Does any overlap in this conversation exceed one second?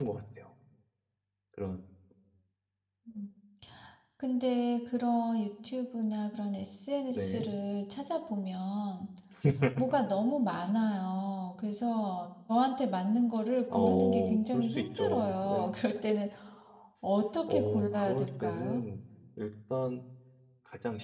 Yes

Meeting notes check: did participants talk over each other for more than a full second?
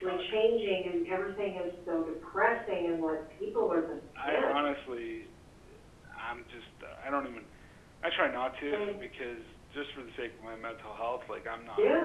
No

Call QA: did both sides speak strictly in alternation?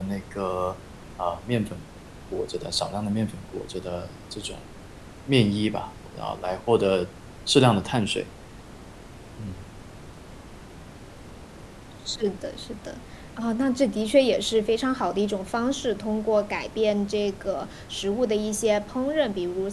Yes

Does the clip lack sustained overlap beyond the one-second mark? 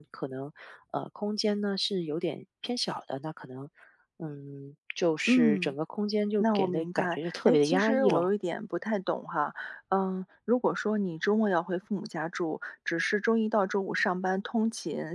No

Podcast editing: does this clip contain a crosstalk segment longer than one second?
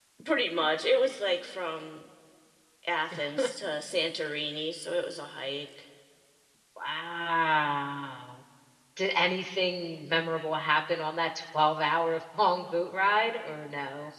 No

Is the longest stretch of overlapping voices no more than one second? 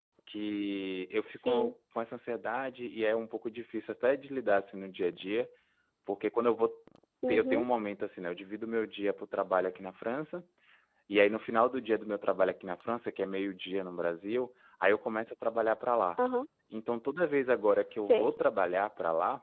Yes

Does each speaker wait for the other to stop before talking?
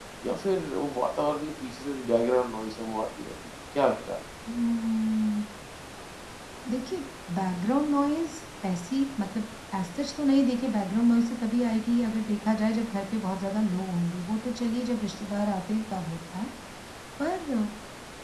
Yes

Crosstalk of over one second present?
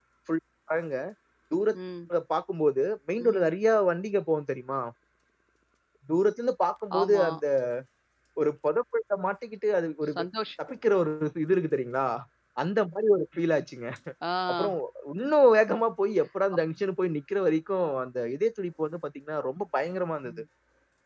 No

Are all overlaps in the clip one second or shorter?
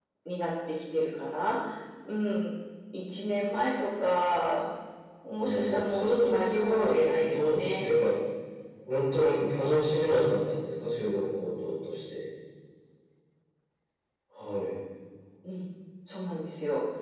No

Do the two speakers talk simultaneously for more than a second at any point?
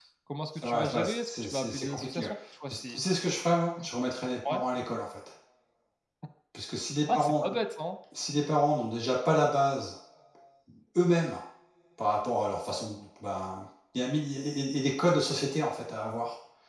Yes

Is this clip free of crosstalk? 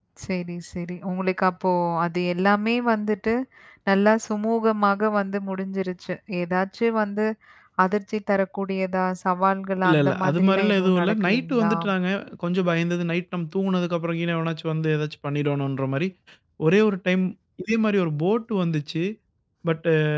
No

